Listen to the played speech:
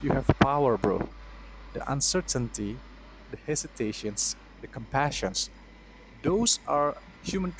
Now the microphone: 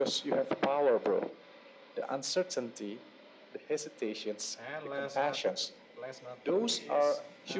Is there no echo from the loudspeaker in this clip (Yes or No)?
No